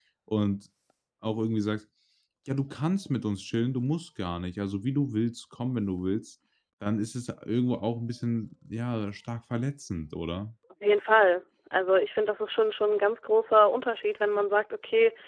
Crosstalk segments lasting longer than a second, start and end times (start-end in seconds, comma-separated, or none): none